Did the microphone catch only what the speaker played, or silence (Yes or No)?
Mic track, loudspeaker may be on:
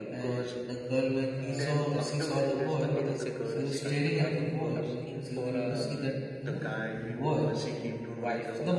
No